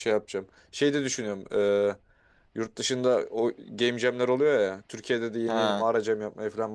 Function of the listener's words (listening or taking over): listening